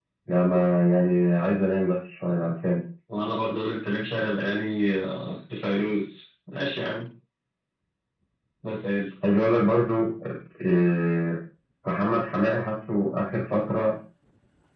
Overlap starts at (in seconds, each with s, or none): none